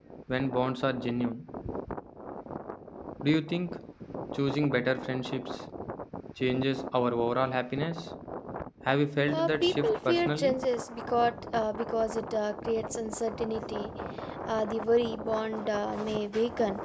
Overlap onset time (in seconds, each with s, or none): 9.3 s